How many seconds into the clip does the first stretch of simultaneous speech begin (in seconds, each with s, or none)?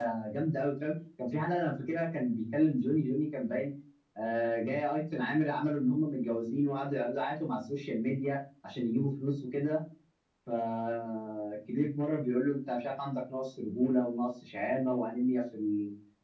none